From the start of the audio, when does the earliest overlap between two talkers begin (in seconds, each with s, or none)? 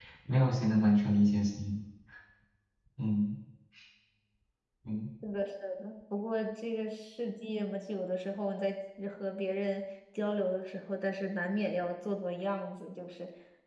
none